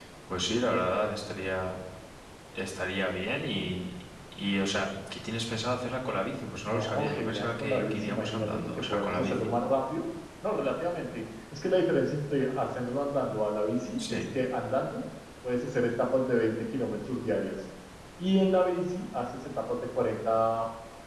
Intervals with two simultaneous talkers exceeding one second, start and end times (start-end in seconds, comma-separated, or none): 6.7-9.3